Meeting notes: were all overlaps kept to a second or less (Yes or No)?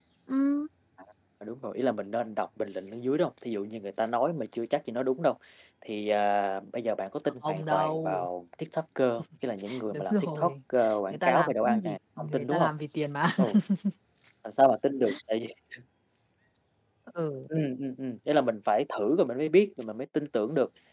No